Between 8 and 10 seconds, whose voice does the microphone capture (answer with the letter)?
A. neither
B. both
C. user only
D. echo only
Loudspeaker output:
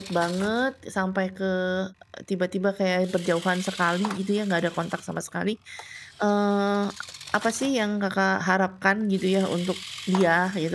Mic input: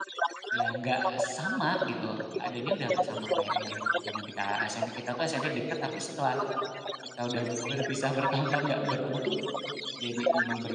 B